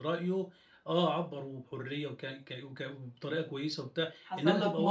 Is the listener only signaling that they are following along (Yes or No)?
No